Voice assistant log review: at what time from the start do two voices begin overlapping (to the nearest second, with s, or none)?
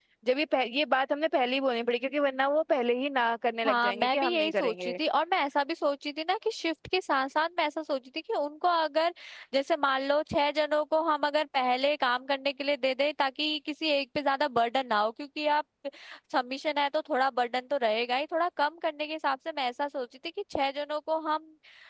4 s